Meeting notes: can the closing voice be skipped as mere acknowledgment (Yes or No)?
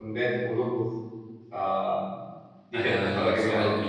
No